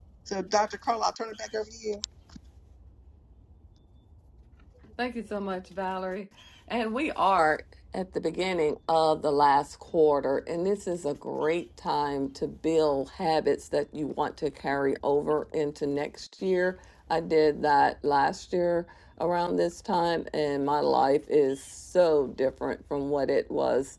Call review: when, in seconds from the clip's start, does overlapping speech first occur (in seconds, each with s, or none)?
none